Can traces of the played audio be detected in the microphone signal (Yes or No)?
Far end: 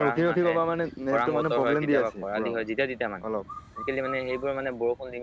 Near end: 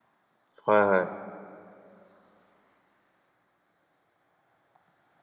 No